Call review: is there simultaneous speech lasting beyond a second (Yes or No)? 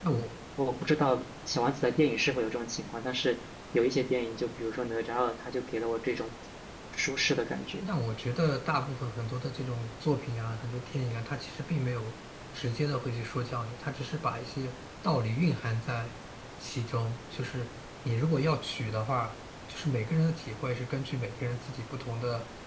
No